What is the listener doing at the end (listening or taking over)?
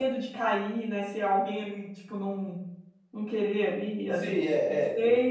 taking over